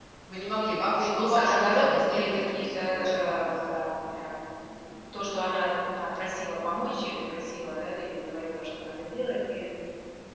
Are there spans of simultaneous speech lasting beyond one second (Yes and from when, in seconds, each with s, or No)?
Yes, from 0.9 s